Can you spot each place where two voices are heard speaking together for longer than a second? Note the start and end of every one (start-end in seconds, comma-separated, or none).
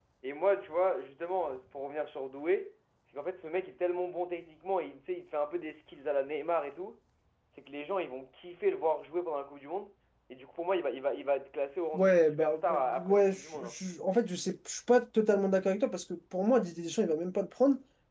11.9-13.7